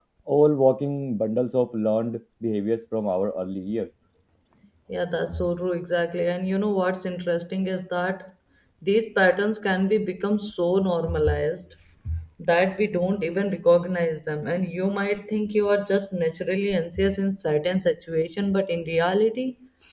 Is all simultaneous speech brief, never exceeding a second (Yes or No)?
Yes